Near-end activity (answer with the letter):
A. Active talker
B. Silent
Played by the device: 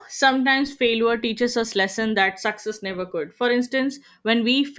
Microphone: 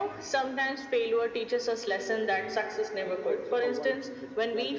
A